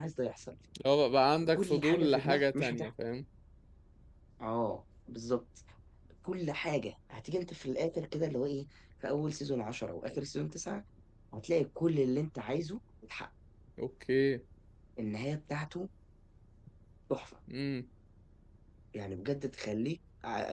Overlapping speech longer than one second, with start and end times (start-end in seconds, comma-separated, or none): 1.6-2.9